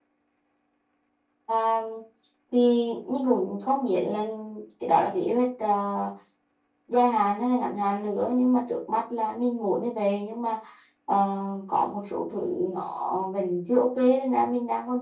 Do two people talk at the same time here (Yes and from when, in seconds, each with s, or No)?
No